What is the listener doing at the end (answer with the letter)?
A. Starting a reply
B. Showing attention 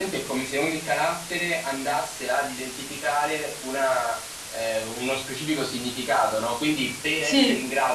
B